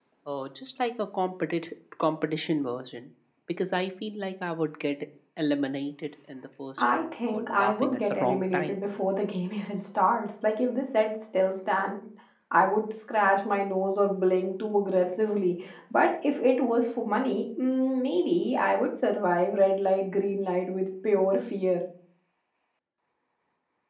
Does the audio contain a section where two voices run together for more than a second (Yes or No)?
Yes